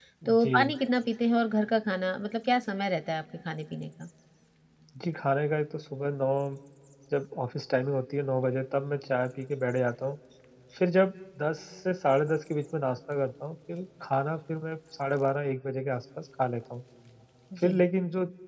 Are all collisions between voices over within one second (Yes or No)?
Yes